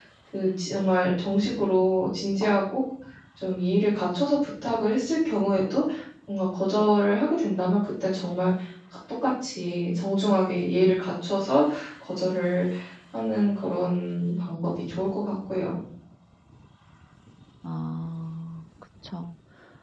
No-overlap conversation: Yes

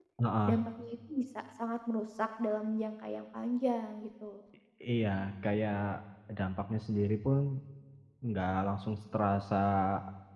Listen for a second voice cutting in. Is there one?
No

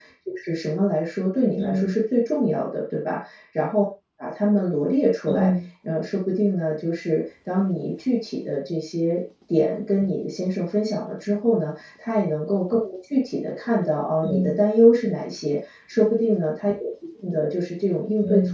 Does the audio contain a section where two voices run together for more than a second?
No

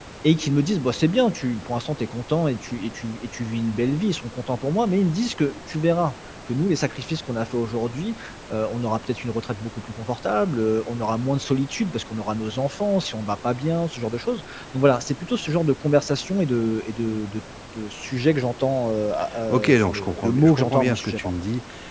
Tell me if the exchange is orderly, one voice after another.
No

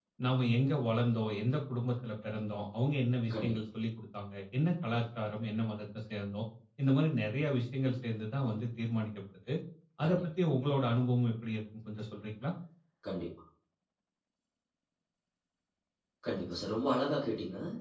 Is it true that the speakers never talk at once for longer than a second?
Yes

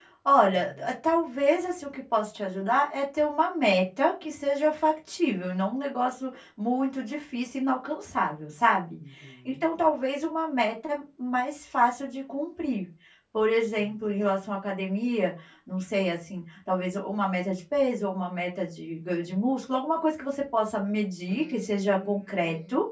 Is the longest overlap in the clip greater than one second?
Yes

